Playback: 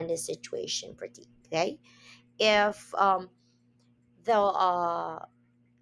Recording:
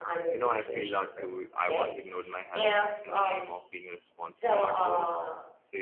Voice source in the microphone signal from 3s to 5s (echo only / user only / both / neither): both